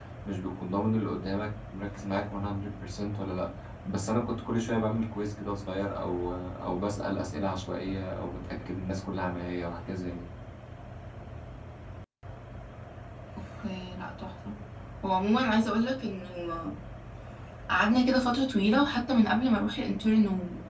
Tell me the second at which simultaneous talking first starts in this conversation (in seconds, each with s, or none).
none